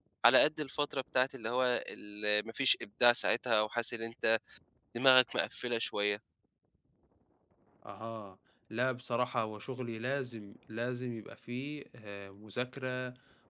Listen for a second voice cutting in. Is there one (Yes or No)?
No